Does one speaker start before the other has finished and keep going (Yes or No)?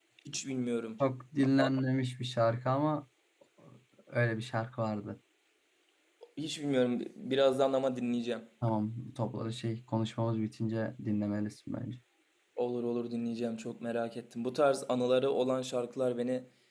No